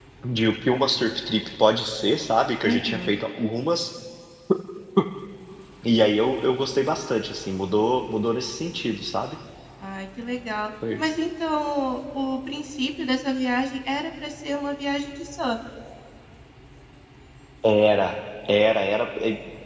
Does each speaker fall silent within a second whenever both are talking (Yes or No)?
Yes